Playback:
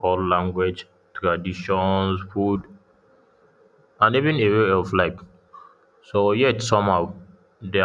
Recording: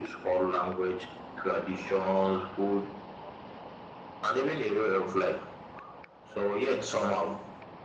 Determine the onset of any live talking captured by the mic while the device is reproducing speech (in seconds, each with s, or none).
none